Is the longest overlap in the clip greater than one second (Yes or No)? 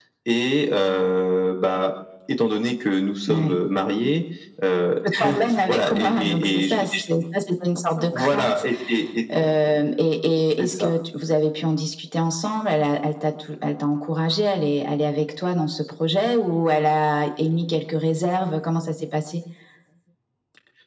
Yes